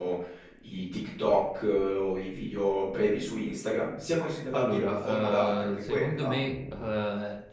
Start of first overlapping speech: 5 s

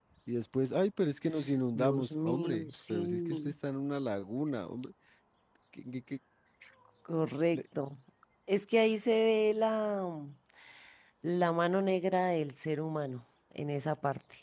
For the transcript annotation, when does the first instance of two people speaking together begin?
2 s

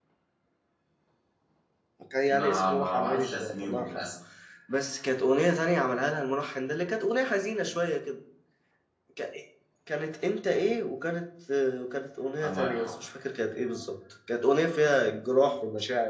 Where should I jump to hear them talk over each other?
2 s

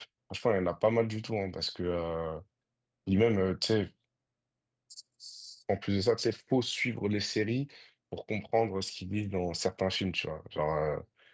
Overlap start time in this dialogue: none

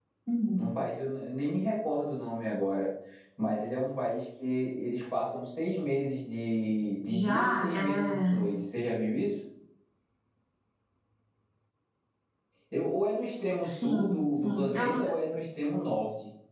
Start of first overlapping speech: 7 s

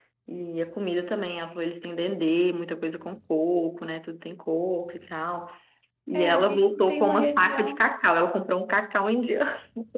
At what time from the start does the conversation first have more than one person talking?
6 s

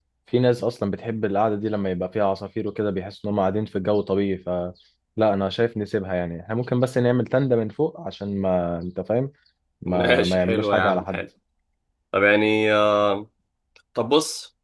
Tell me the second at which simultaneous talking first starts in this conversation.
10 s

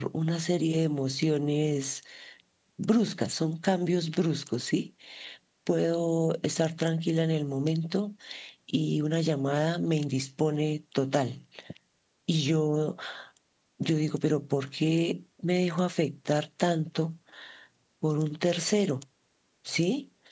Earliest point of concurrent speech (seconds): none

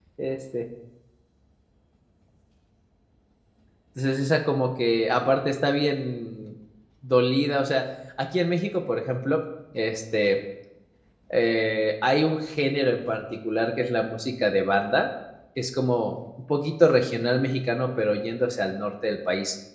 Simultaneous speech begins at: none

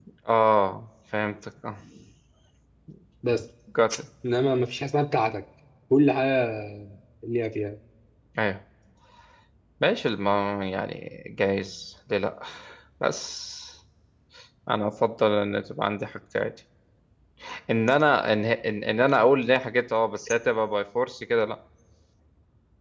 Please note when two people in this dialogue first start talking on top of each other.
none

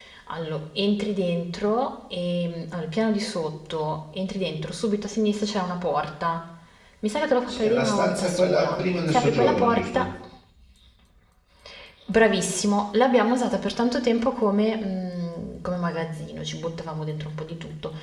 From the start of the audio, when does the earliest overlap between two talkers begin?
7 s

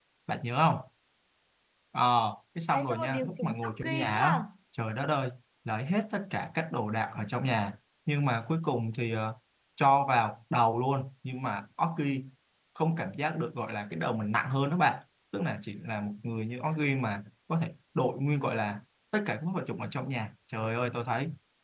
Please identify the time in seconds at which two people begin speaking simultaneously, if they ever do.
3 s

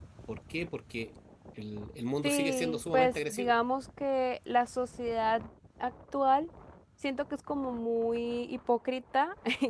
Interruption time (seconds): 2 s

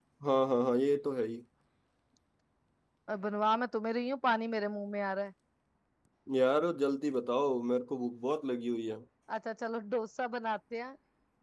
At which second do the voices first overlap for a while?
none

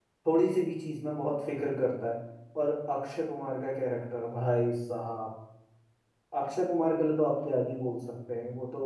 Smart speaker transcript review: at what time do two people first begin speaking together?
none

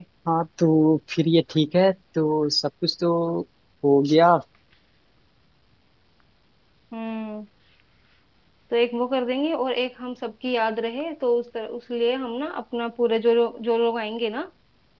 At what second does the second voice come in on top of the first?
none

